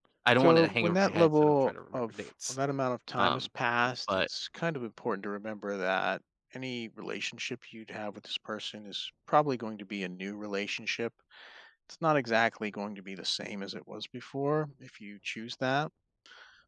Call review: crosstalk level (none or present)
present